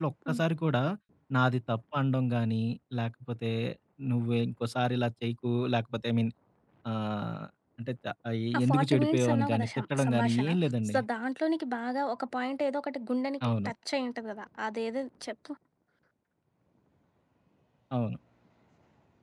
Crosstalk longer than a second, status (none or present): present